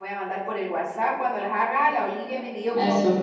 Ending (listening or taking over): listening